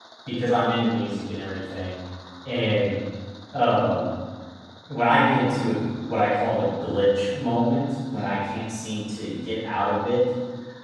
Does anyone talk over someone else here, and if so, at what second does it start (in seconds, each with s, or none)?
none